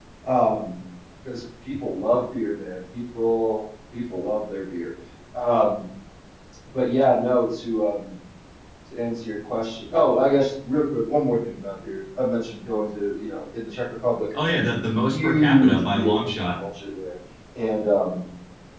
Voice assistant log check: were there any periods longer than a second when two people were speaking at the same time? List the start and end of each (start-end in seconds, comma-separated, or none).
15.1-16.6